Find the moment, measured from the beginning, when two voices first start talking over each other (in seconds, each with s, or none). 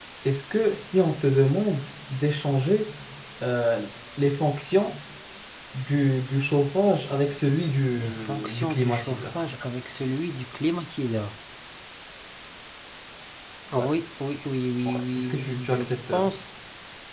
8.0 s